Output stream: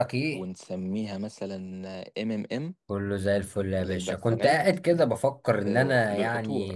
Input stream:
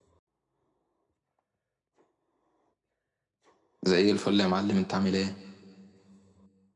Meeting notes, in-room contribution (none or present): present